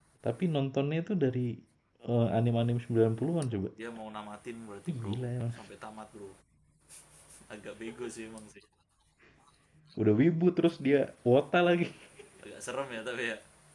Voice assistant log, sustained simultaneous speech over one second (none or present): none